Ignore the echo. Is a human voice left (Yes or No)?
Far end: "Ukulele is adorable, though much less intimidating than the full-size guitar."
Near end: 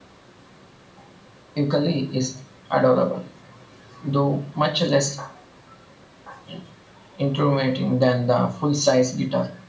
No